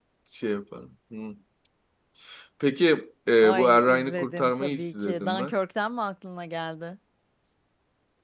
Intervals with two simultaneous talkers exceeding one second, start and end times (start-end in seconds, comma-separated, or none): 3.5-5.5